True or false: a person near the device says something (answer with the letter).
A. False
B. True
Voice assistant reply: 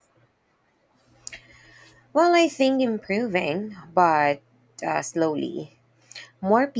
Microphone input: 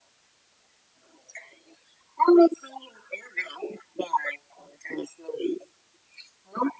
A